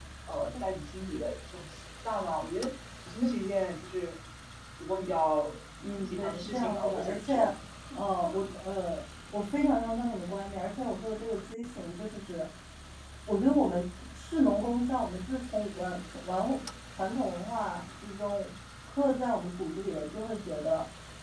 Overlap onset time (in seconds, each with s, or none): 6.0 s